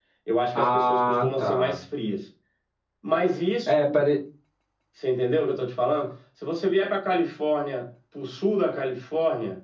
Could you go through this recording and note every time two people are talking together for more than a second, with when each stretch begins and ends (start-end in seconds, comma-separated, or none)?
0.6-1.8